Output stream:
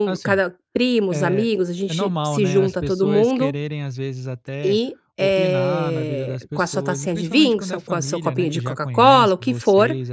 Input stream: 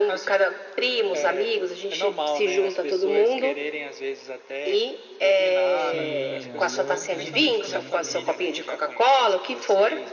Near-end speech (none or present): present